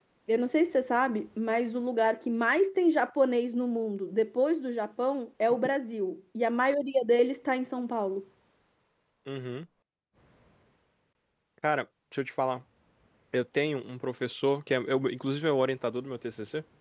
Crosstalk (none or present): none